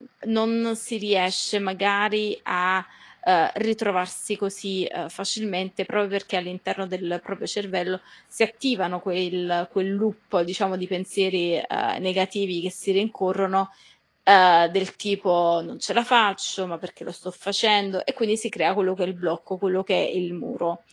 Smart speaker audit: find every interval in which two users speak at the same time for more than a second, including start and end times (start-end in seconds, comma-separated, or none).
none